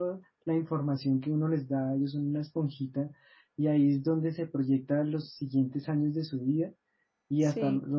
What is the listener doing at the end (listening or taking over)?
listening